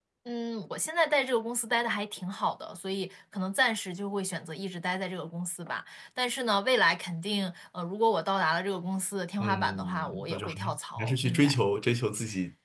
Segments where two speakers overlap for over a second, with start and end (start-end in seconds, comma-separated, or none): 9.4-11.6